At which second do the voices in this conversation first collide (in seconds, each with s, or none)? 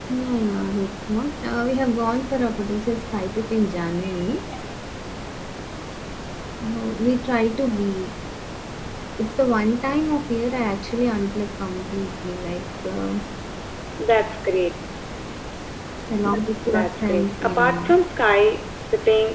16.7 s